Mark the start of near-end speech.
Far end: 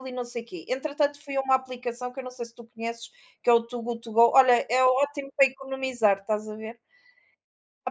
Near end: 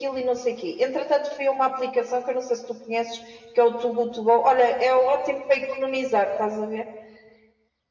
none

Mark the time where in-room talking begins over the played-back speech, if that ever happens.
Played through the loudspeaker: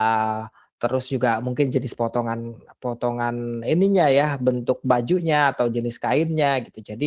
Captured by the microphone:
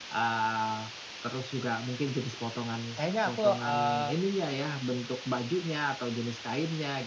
2.9 s

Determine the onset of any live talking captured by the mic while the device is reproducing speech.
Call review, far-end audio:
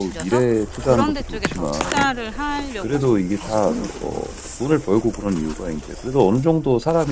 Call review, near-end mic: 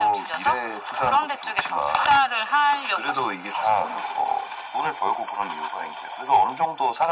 none

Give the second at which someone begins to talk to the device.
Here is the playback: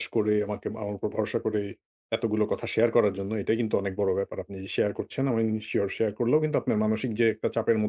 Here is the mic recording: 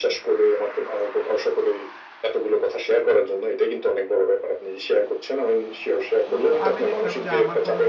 6.3 s

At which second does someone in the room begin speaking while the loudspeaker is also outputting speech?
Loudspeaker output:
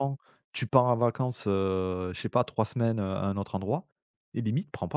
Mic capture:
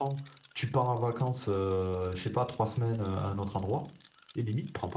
none

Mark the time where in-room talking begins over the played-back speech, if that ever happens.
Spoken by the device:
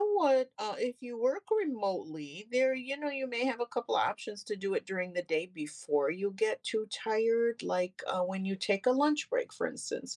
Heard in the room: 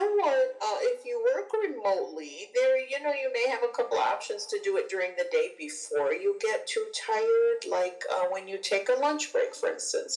none

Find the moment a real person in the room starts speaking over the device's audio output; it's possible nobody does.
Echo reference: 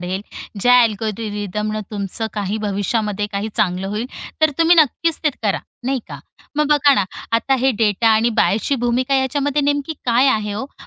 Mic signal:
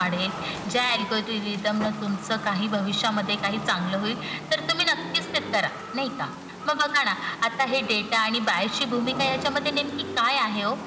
none

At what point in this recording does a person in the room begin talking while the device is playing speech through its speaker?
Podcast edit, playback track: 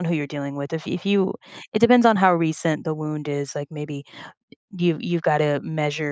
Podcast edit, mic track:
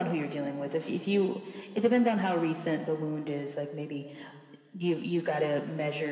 none

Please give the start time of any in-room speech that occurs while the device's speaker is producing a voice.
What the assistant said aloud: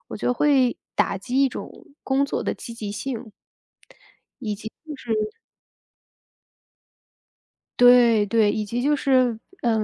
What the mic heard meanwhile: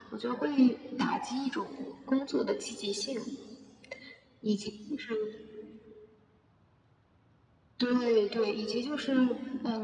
none

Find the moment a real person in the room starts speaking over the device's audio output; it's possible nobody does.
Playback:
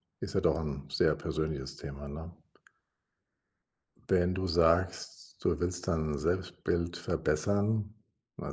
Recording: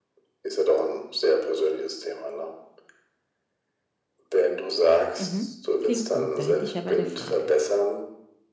5.2 s

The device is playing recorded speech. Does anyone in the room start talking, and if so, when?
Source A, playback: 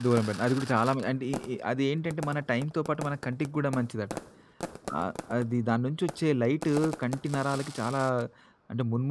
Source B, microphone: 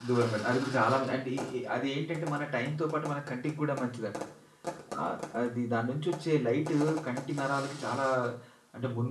none

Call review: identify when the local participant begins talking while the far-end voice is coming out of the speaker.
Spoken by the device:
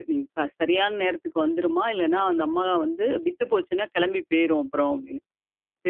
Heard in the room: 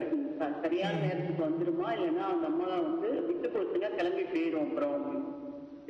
0.8 s

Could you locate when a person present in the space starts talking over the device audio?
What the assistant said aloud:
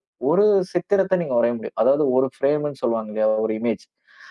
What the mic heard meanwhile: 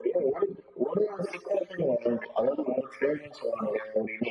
none

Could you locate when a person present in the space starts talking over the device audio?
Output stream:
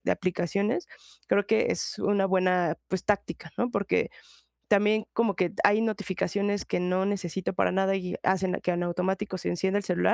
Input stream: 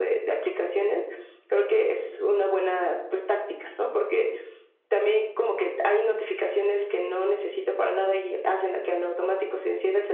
none

